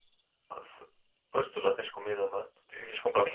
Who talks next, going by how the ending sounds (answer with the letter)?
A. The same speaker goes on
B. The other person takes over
B